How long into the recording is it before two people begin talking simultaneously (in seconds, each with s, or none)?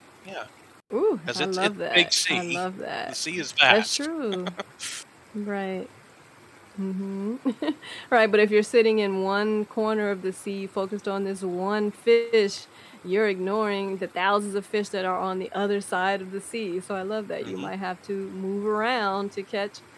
1.3 s